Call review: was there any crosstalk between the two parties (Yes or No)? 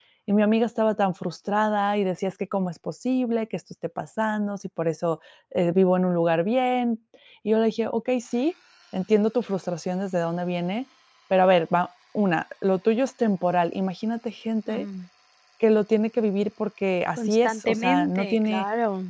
Yes